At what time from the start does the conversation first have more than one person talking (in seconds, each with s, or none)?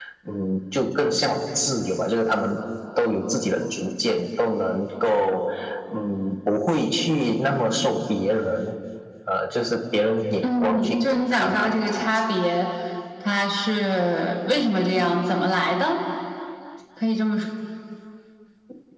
10.4 s